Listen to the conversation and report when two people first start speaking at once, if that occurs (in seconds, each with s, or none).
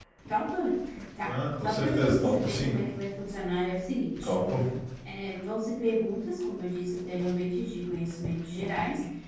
1.2 s